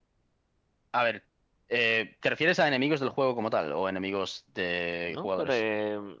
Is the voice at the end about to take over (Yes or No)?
Yes